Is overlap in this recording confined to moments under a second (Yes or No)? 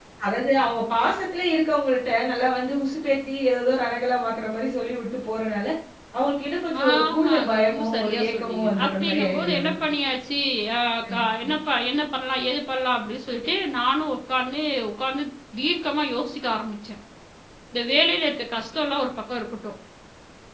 No